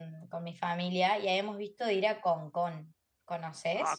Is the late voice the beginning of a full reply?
Yes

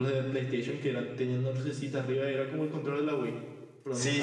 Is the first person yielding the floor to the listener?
Yes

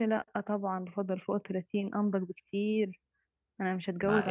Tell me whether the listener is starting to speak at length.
Yes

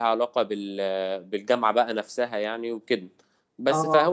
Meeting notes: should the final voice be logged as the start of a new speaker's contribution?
No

